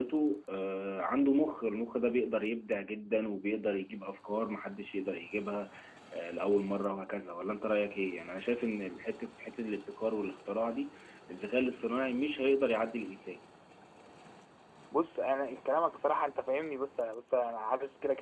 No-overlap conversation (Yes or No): Yes